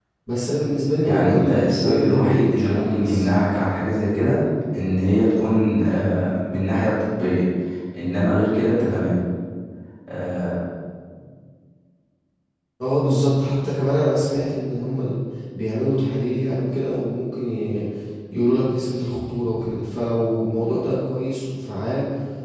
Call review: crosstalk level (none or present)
present